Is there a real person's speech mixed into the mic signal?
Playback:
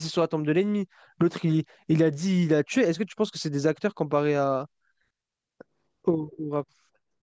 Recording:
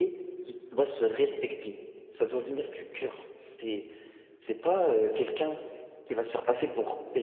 Yes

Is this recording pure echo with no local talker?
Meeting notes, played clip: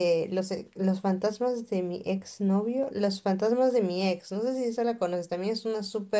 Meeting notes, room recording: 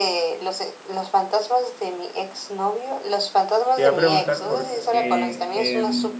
No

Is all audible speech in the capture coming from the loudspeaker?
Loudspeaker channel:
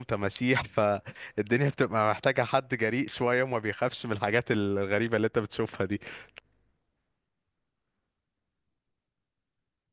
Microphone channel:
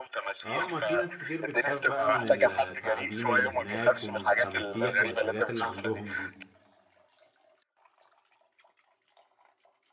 No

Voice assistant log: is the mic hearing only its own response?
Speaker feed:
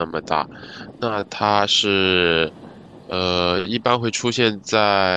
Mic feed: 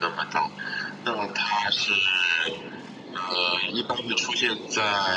Yes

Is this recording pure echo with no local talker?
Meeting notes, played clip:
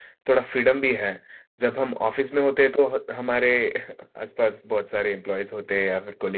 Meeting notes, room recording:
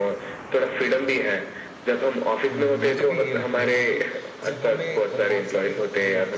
No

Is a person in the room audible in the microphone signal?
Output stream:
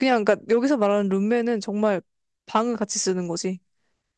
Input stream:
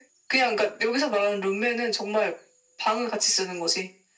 No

